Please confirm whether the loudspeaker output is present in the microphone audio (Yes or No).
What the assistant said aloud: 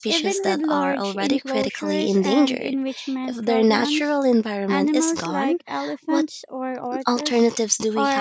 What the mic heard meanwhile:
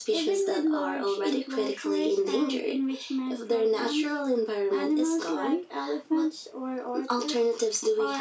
Yes